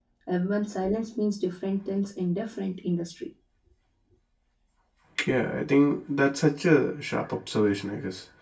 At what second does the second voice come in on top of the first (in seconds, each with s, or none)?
none